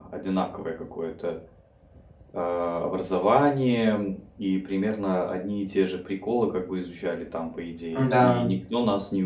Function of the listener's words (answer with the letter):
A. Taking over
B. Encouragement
B